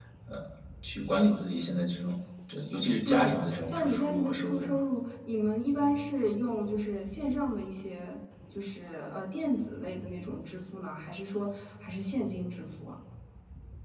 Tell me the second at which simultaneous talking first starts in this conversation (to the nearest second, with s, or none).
3 s